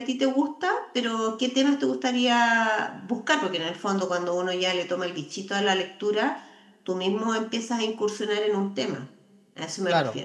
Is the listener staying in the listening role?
No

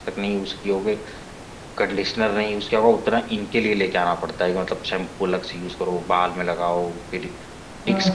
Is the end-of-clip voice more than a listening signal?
No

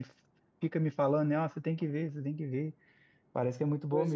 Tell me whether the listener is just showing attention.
No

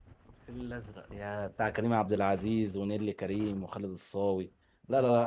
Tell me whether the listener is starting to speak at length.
Yes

